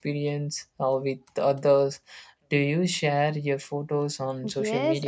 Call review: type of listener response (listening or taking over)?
taking over